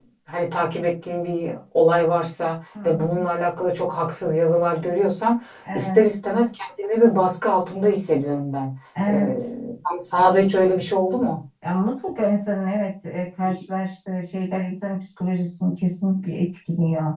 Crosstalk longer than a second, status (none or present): none